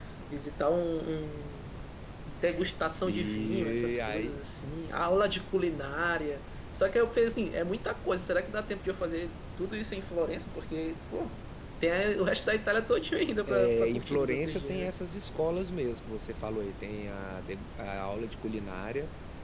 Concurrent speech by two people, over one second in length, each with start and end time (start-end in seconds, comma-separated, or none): 3.0-4.4, 13.5-14.7